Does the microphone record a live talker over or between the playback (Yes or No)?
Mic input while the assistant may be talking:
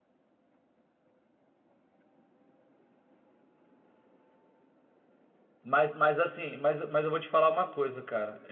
Yes